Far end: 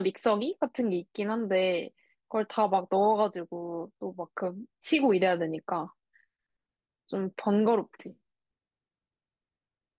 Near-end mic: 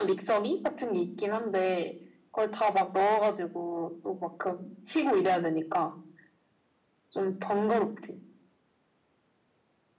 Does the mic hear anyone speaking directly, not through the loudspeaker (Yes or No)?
No